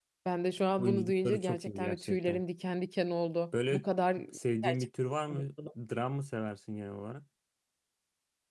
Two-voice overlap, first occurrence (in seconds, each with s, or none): 0.8 s